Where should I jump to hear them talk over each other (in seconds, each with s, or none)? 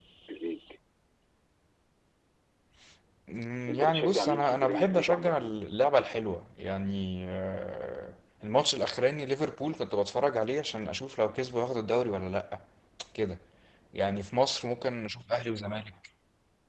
3.7 s